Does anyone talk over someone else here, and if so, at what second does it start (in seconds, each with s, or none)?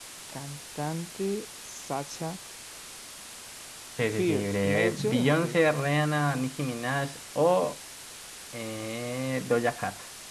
4.0 s